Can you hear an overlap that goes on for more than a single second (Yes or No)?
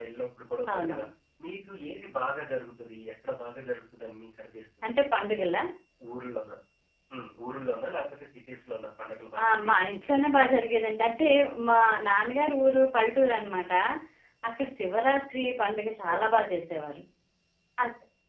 No